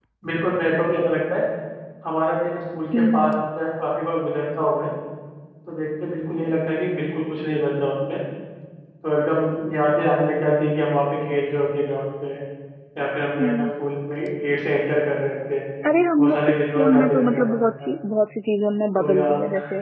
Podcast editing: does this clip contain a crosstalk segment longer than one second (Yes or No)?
Yes